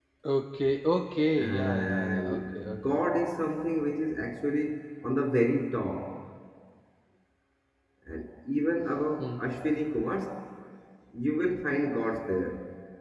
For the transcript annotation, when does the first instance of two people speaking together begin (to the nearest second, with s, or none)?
1 s